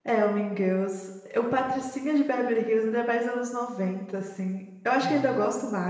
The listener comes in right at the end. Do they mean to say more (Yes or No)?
No